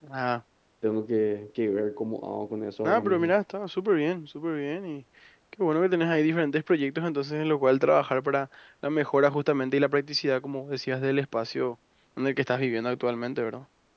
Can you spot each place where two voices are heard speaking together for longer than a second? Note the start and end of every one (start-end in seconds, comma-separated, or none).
none